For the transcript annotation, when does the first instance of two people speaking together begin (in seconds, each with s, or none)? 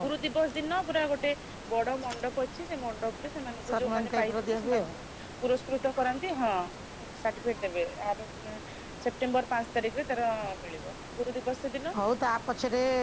3.7 s